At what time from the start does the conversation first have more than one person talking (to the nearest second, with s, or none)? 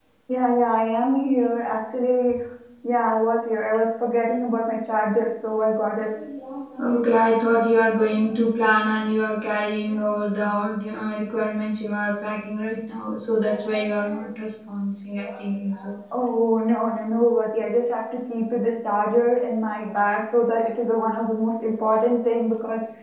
none